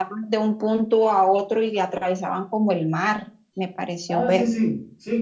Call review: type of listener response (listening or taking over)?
taking over